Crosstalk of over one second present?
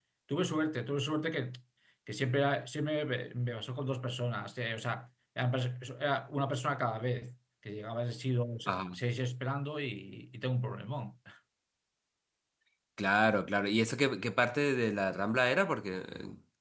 No

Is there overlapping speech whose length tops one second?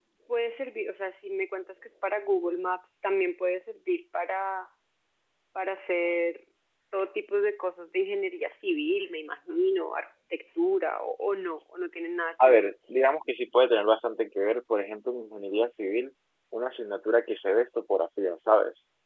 No

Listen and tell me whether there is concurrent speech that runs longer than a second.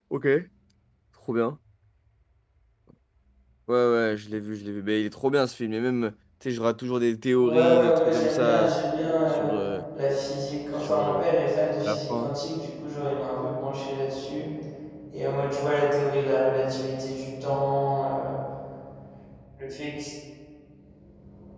Yes, from 7.4 s

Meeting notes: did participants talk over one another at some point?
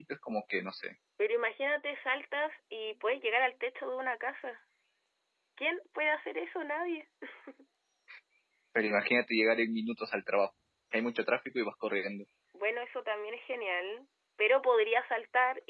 No

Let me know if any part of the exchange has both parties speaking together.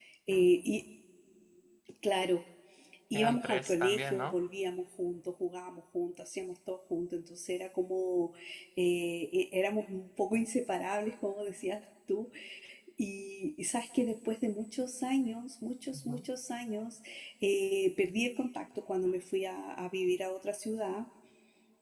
Yes, from 3.1 s

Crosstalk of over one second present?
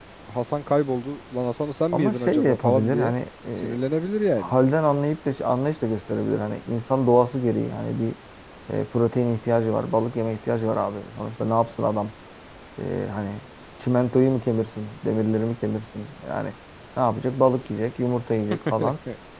Yes, from 1.9 s

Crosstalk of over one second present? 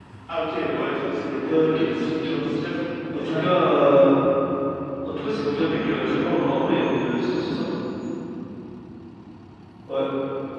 Yes, from 1.2 s

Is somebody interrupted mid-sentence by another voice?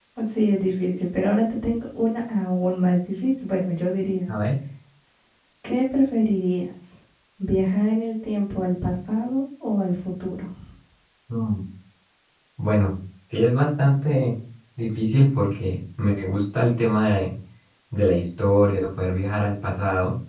No

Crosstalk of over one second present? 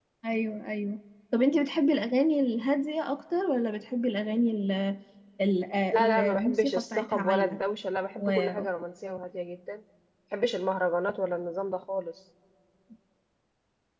Yes, from 5.9 s

